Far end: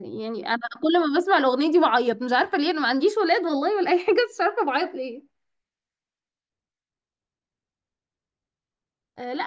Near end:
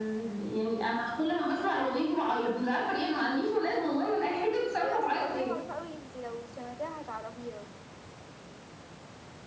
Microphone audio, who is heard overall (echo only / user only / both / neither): both